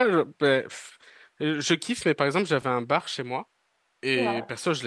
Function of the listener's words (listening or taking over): listening